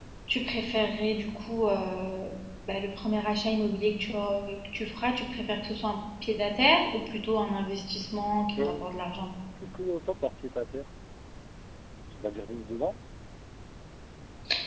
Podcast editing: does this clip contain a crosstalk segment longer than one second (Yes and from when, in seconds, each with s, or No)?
No